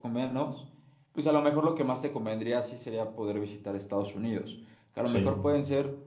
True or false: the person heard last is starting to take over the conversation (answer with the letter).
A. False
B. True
A